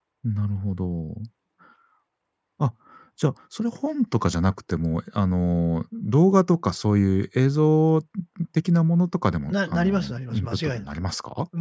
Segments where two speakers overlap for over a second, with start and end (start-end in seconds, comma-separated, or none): 9.5-10.8